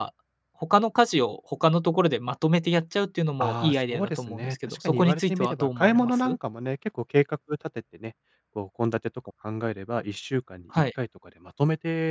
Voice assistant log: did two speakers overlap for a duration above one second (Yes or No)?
Yes